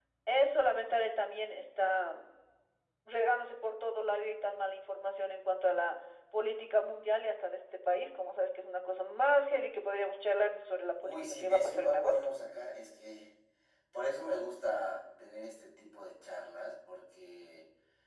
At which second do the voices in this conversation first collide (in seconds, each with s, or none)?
11.0 s